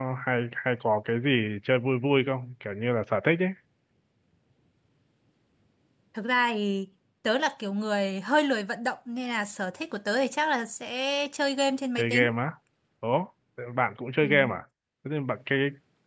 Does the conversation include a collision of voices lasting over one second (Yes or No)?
No